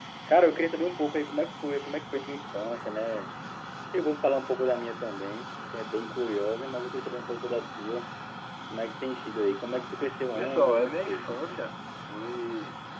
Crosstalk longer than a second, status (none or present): present